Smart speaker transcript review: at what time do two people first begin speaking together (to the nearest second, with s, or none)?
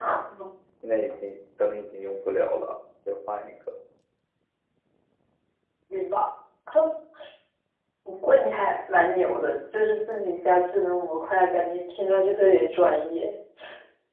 none